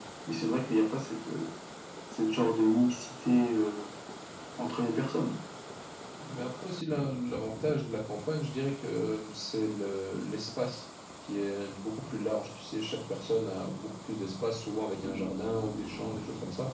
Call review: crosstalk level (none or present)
none